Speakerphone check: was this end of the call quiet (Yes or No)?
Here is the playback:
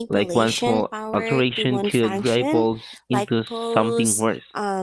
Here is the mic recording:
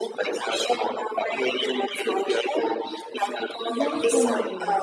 No